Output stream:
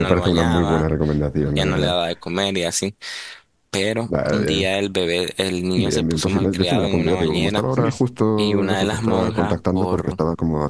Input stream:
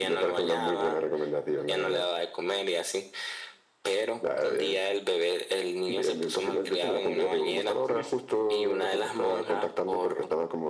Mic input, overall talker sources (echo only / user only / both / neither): echo only